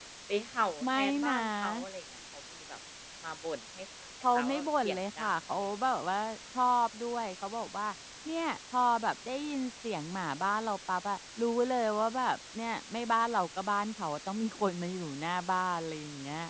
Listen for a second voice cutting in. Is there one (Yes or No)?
Yes